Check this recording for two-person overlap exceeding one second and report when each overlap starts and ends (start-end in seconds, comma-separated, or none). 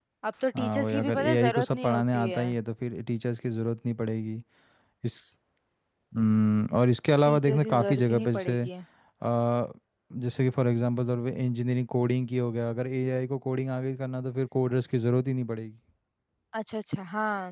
0.6-2.5, 7.2-8.6